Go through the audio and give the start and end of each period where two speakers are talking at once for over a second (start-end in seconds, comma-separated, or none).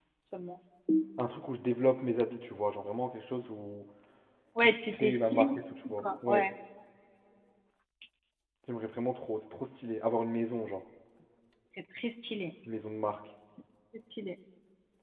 4.6-6.5